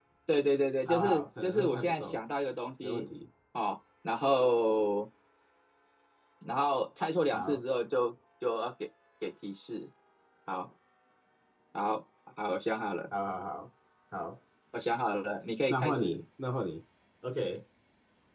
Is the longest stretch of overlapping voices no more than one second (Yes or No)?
No